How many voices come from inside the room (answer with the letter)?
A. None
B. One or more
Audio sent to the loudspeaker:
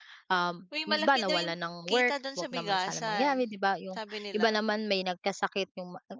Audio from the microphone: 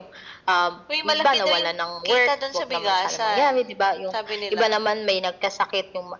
A